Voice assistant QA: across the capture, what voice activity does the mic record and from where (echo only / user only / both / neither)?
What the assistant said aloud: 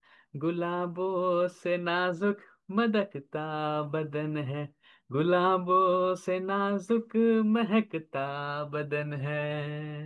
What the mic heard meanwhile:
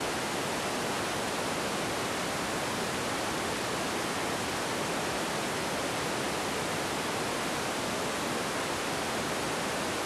neither